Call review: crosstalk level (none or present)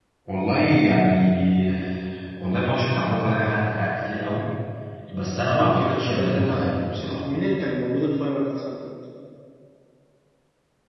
present